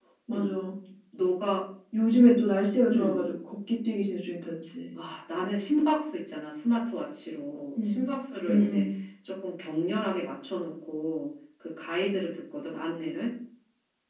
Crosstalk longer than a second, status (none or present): none